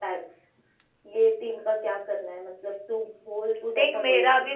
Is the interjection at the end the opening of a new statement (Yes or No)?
Yes